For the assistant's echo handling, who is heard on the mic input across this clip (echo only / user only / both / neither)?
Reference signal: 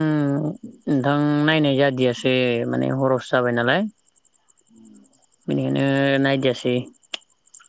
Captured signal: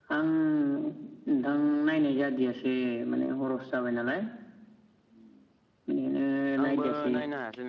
both